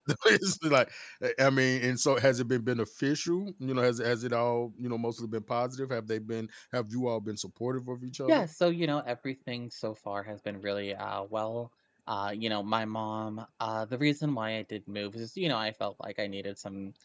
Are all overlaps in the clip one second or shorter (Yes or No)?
Yes